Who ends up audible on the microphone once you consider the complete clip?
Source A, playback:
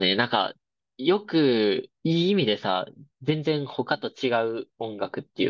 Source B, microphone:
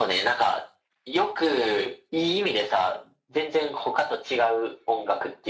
echo only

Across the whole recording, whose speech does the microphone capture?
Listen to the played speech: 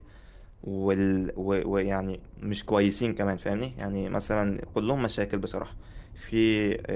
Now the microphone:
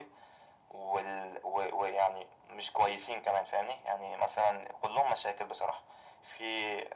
echo only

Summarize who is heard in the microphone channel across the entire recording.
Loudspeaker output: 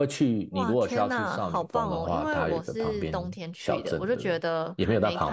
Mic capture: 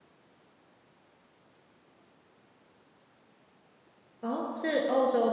user only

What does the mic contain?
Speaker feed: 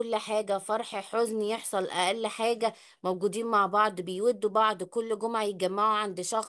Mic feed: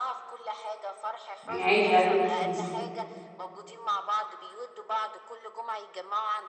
both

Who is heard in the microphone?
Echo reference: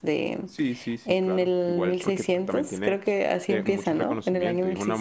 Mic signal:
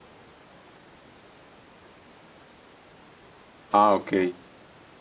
user only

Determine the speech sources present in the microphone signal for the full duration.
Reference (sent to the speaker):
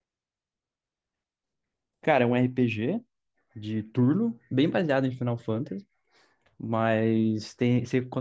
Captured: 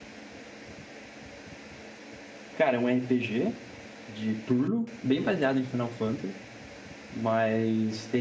echo only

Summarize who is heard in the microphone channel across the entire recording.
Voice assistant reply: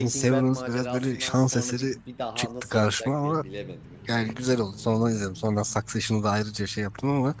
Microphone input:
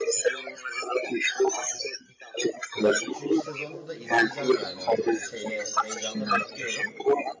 both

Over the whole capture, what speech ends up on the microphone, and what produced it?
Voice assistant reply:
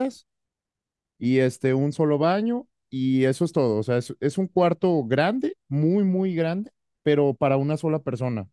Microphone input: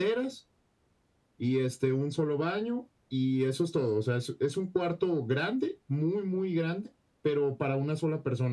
echo only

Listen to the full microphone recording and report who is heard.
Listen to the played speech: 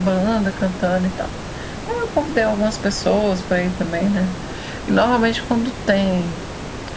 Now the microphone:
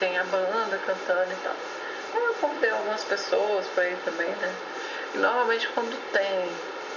echo only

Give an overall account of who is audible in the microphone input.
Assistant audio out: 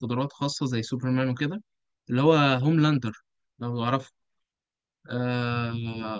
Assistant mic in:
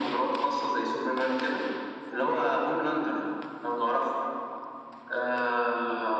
echo only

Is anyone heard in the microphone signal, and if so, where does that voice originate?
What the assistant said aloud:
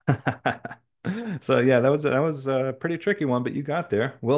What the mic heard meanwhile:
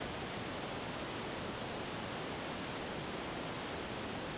neither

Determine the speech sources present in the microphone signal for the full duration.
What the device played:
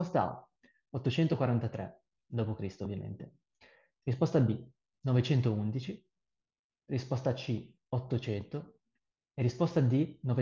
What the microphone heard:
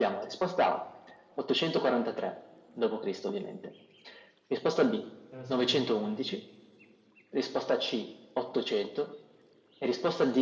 both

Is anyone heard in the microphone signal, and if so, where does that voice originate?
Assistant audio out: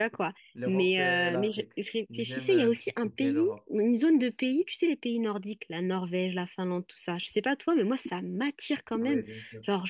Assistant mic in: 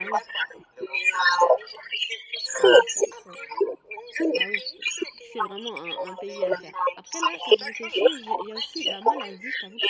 both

